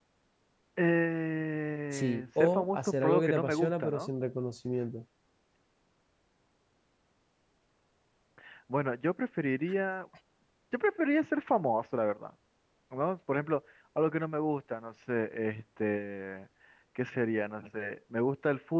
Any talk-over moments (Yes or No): Yes